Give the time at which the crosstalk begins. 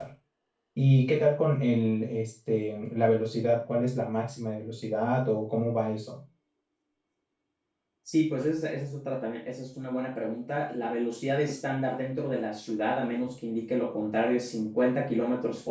none

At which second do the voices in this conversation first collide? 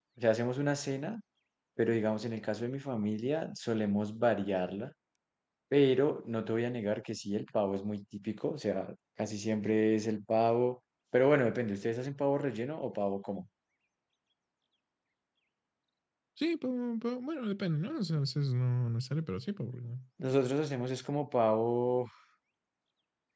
none

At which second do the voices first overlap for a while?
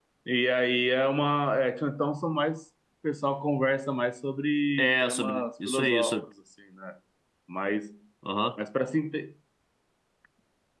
4.8 s

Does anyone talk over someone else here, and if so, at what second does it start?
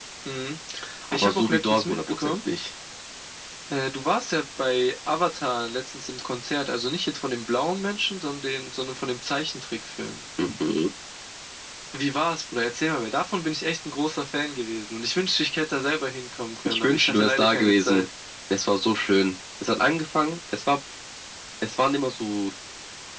1.1 s

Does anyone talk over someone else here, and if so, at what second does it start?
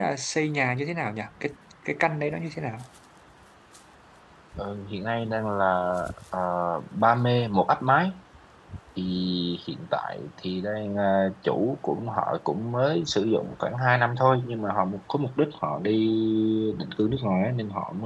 none

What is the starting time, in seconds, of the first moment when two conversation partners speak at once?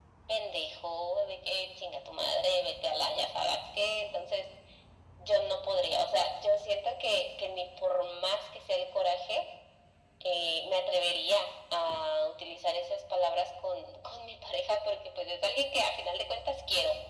none

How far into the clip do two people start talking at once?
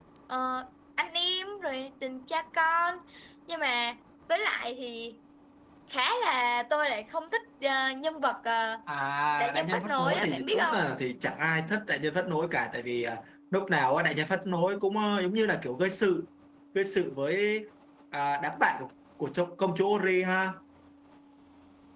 9.4 s

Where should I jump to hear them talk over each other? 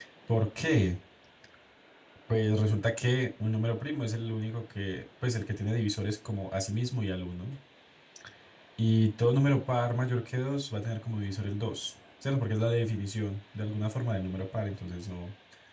none

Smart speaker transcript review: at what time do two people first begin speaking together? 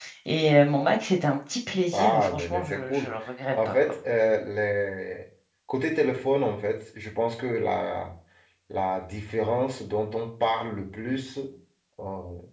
1.9 s

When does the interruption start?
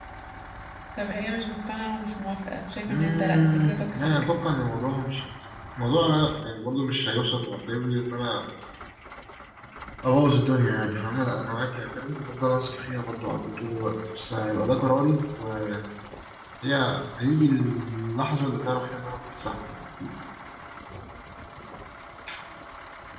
2.9 s

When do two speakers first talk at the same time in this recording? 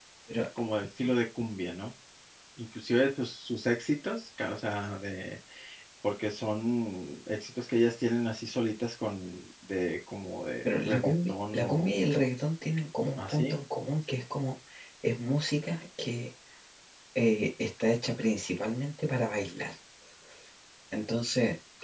10.6 s

